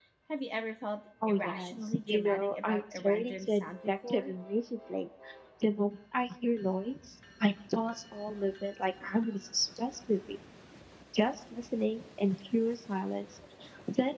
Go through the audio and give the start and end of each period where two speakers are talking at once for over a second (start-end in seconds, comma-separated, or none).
1.3-4.3